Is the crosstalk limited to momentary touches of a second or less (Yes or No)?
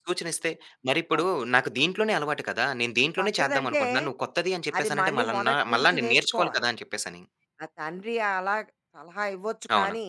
No